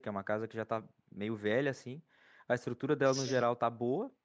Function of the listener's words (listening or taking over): listening